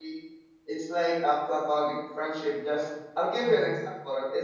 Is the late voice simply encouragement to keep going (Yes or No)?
Yes